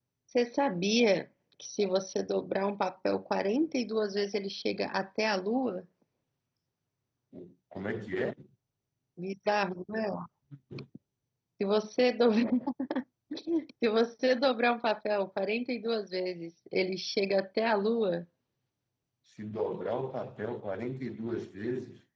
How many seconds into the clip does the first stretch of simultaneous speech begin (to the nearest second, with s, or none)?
none